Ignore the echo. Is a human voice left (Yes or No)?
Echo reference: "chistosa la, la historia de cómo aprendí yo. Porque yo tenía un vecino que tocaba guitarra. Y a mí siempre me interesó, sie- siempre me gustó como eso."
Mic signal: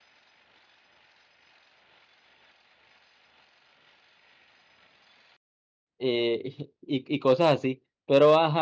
Yes